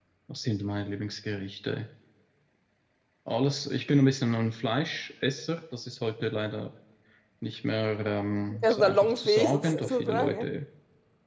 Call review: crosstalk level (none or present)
present